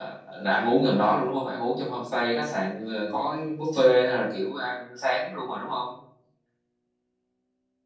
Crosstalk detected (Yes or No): No